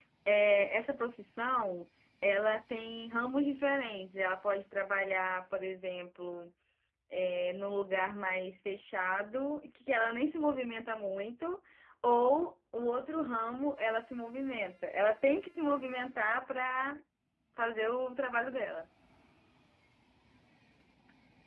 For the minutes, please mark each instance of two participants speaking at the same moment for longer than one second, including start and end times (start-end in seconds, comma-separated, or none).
none